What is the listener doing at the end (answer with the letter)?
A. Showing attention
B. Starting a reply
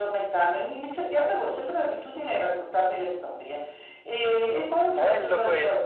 A